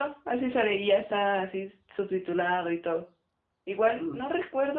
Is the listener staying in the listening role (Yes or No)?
Yes